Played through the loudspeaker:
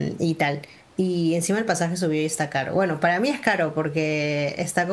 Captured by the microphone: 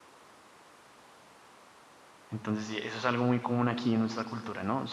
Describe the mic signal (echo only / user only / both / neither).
user only